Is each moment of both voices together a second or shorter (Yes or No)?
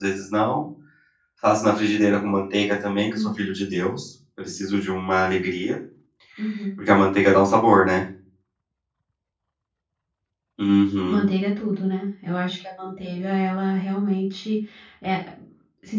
Yes